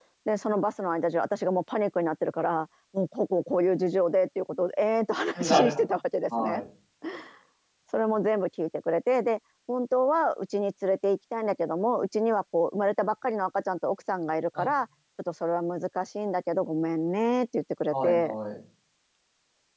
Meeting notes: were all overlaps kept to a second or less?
Yes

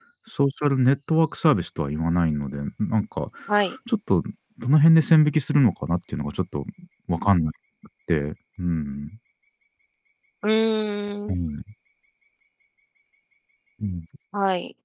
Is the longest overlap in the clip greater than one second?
No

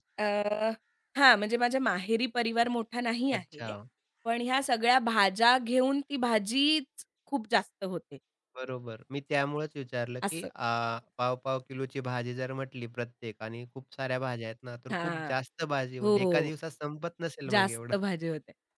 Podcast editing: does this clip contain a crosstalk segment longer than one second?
No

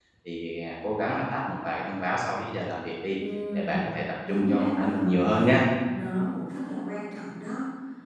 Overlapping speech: Yes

